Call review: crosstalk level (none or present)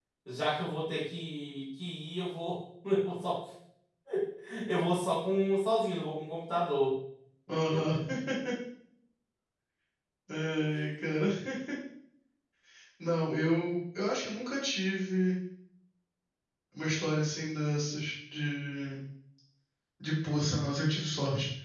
none